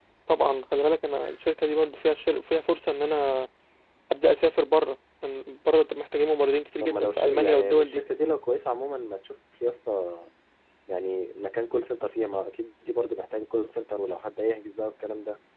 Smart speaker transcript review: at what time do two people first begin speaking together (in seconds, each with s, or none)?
6.8 s